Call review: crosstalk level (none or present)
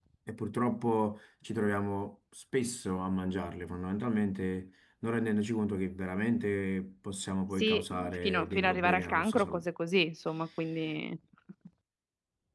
present